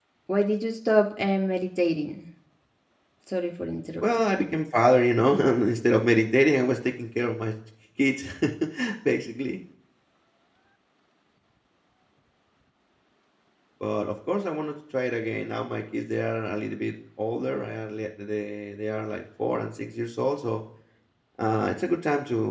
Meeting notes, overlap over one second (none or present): none